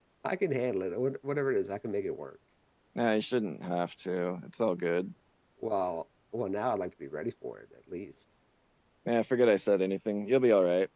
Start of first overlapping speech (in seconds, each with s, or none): none